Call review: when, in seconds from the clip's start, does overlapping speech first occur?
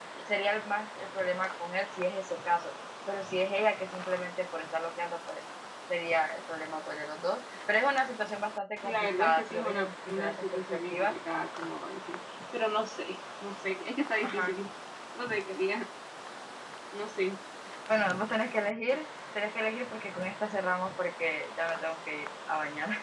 9 s

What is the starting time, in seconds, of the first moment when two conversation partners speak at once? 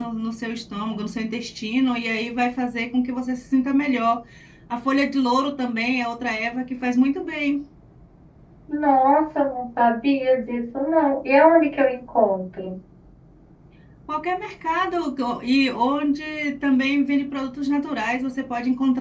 none

